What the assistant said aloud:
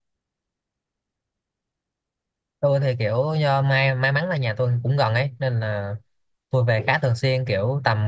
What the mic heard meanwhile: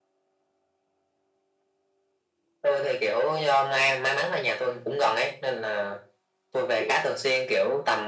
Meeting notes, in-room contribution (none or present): none